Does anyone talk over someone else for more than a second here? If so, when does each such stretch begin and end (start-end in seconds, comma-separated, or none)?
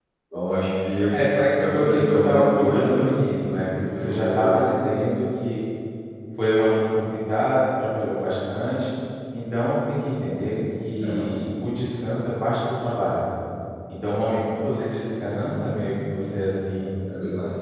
1.7-3.1